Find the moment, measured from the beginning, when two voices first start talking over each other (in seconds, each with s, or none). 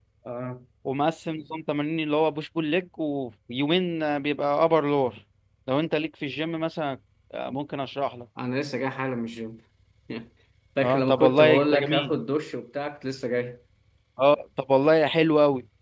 10.8 s